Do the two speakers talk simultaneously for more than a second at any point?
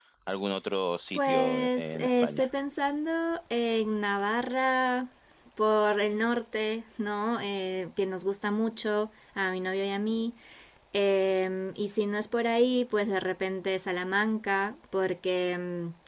Yes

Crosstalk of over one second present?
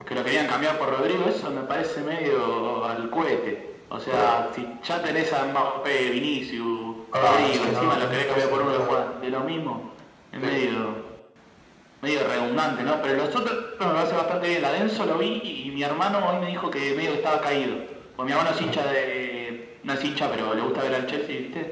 Yes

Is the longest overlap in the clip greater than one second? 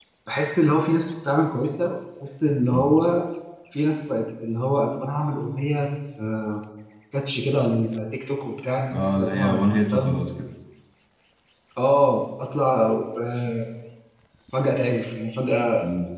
Yes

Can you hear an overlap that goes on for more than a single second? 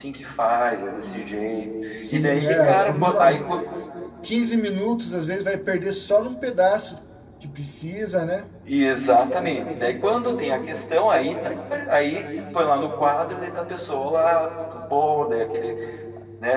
Yes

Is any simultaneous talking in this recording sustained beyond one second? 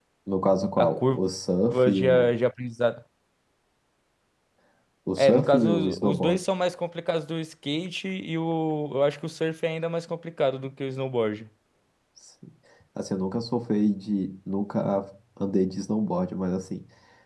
Yes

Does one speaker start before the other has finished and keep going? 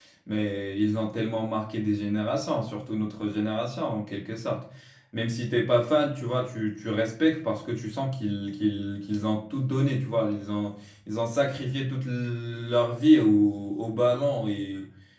No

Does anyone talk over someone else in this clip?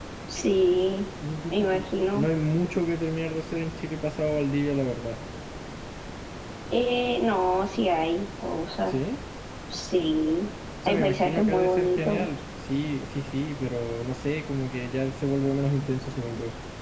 Yes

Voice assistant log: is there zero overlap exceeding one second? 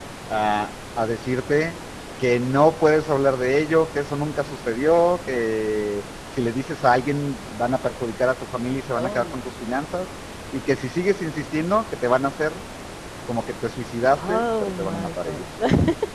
No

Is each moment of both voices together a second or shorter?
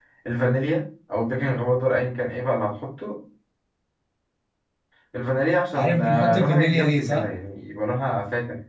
No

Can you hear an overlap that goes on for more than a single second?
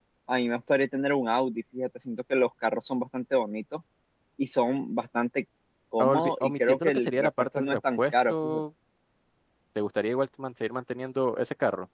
Yes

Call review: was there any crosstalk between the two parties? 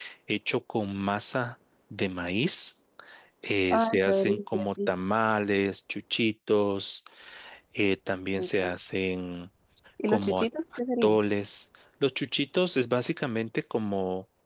Yes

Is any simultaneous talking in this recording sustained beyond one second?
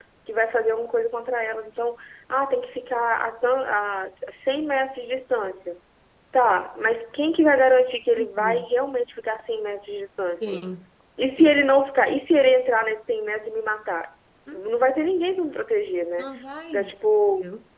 No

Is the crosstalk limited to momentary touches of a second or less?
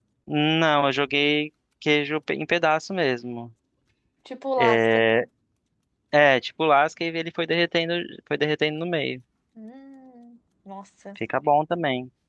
Yes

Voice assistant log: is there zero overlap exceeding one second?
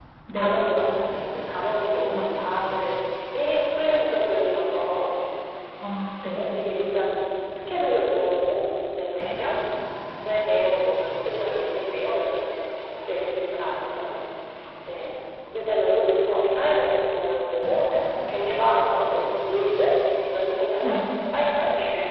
Yes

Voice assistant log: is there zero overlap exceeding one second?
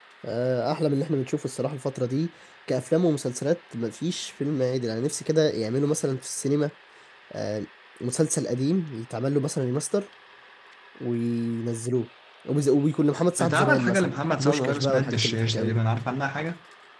No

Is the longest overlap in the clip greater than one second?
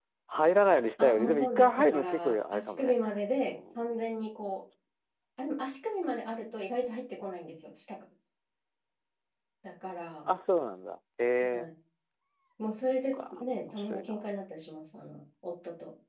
Yes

